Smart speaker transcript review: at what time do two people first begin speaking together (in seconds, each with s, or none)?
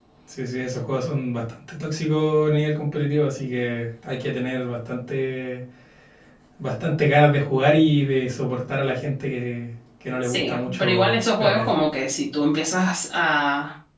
10.2 s